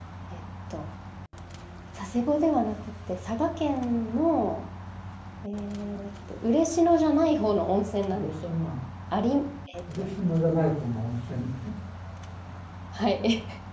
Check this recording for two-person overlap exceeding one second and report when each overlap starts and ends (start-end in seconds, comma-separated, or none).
none